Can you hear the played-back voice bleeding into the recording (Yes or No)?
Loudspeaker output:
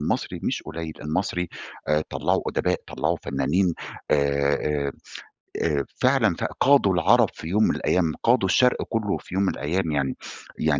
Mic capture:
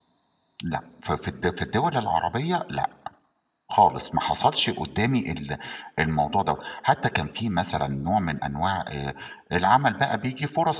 No